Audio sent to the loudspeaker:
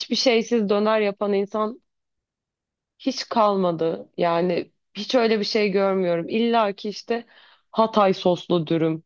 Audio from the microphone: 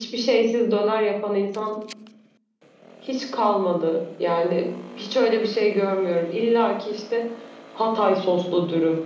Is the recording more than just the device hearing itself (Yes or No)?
No